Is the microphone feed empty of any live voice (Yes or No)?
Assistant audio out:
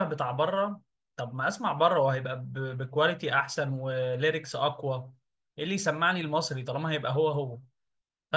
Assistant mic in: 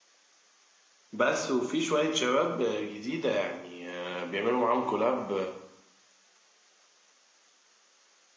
No